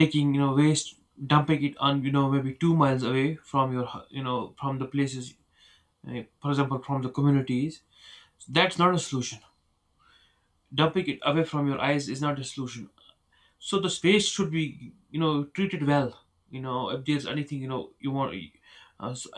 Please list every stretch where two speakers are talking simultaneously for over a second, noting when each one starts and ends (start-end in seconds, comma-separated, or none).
none